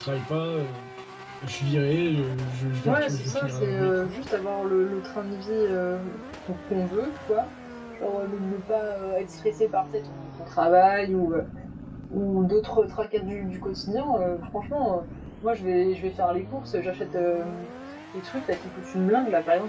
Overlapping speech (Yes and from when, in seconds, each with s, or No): Yes, from 2.9 s